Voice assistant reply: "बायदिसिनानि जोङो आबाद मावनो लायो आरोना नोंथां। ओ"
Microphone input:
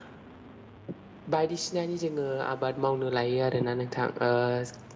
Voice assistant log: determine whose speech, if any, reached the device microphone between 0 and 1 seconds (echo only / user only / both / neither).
neither